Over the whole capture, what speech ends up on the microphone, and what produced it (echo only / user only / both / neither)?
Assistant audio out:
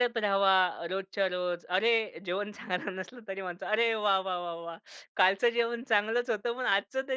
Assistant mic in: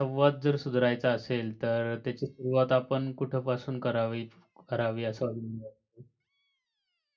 user only